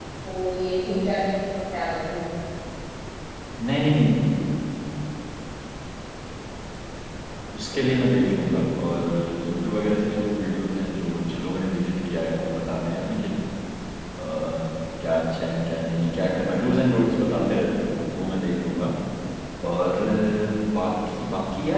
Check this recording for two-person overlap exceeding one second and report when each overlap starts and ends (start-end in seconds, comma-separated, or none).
none